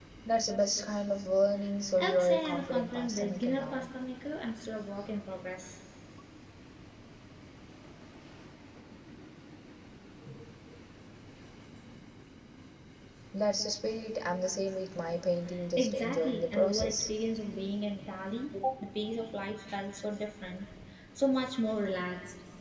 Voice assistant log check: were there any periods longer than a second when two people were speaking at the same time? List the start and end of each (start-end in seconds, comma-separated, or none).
2.0-3.9, 15.8-17.1